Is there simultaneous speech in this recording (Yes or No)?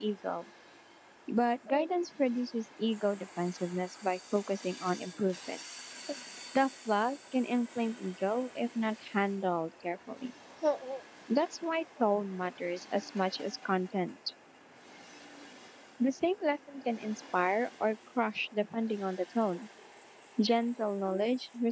No